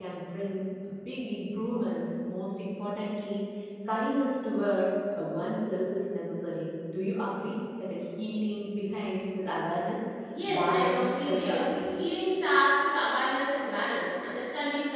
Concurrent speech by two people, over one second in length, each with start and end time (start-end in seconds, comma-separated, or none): 10.5-11.7